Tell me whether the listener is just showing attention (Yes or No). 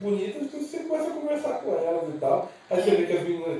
Yes